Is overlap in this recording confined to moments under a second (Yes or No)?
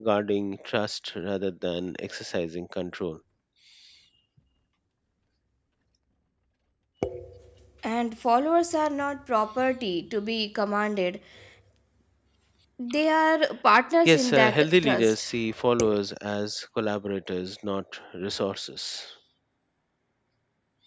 No